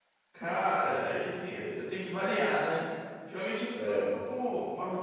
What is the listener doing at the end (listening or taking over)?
listening